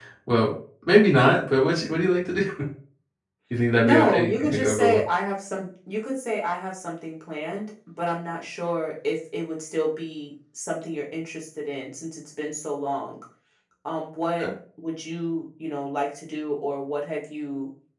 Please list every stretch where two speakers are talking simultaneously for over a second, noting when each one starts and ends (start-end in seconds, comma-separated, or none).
3.8-5.0